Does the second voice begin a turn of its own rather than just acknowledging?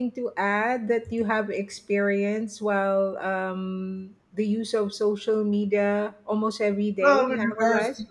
Yes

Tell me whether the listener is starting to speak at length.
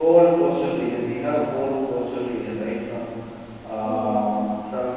No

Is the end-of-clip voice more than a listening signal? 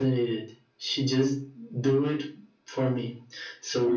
No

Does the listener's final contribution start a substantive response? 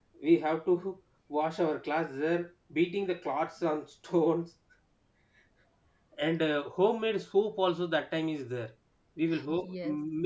No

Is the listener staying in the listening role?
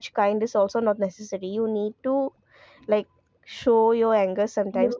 No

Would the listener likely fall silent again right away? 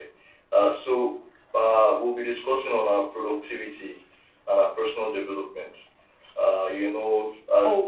Yes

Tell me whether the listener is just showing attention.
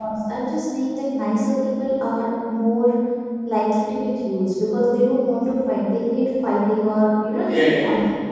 No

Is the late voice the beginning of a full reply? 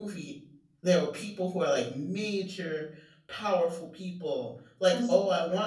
No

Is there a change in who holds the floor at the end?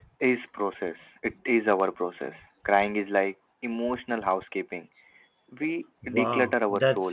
Yes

